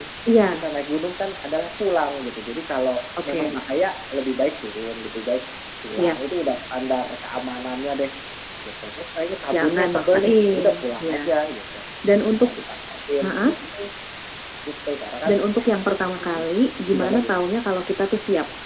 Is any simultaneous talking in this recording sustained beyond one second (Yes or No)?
Yes